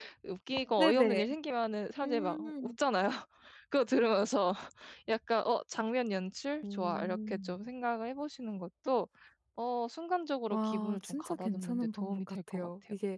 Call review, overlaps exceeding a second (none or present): present